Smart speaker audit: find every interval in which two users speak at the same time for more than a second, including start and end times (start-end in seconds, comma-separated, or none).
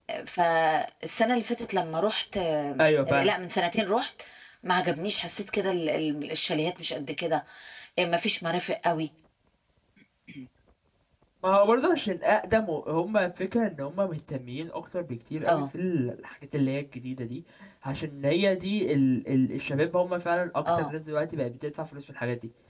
none